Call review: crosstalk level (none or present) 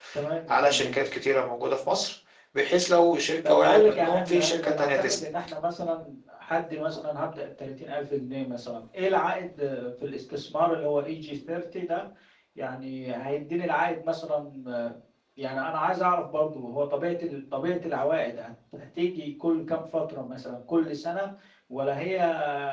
present